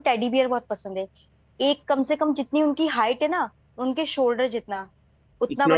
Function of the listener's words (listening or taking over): listening